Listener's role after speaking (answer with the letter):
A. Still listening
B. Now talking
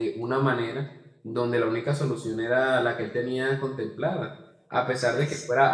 A